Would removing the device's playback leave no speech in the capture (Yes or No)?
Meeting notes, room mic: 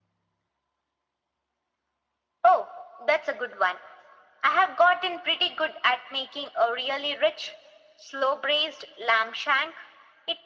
Yes